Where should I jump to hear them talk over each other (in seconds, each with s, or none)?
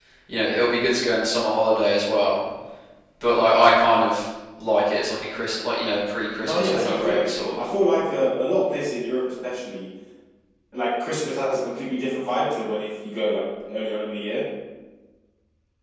6.4 s